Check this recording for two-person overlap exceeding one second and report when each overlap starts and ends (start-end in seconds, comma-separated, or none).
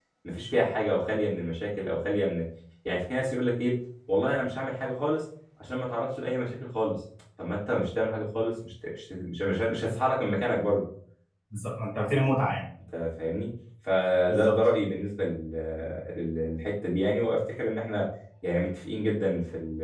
none